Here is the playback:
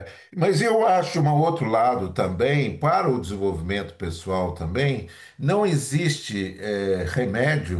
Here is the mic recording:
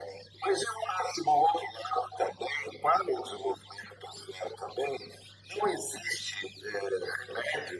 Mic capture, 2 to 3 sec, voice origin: echo only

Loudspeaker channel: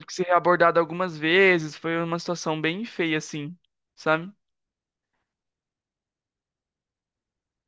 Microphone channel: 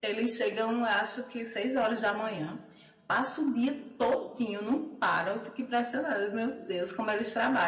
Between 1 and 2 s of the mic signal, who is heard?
user only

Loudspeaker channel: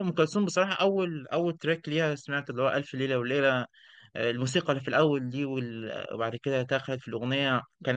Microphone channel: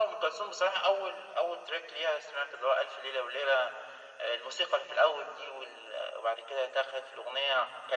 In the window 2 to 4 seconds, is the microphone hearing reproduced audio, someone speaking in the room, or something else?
echo only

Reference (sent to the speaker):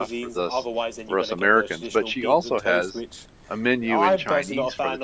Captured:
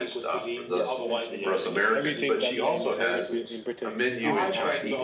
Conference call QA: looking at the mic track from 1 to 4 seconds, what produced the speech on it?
both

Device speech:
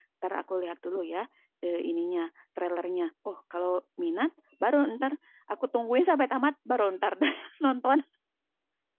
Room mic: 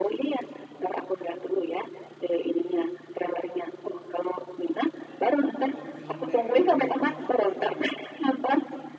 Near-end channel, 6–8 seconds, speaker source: both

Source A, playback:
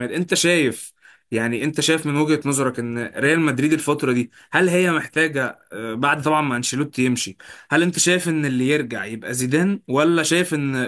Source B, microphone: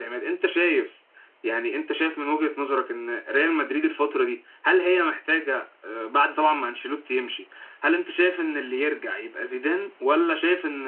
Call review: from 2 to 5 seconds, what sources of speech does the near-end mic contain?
echo only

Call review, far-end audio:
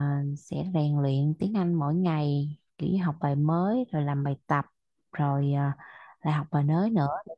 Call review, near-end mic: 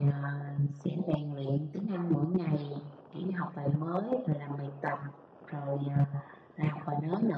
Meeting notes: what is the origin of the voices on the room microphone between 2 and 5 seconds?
echo only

